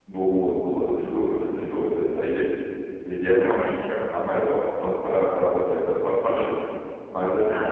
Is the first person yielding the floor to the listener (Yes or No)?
No